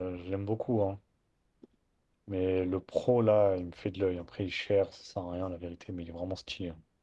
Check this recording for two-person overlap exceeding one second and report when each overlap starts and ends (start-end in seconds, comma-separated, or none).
none